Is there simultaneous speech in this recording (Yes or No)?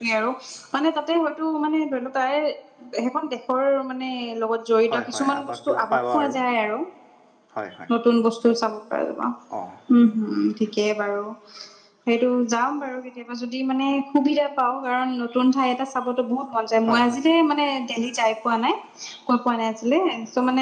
Yes